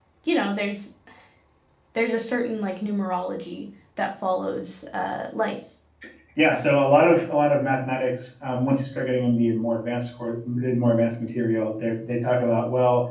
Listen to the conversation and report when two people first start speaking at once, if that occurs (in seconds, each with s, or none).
none